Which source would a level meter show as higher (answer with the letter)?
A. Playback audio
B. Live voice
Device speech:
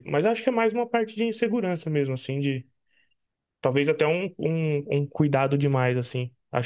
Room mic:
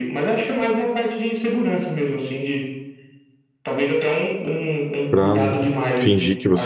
B